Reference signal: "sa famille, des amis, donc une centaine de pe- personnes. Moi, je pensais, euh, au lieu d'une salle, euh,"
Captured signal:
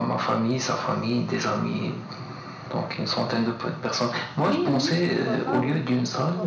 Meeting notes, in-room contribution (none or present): present